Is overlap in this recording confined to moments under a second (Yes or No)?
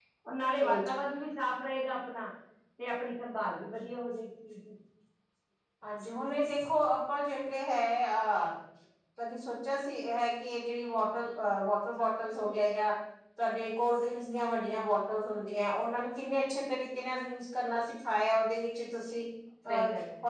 Yes